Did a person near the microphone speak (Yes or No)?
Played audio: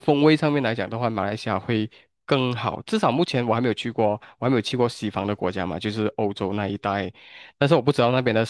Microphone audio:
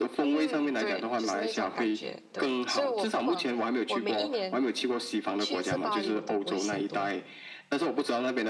Yes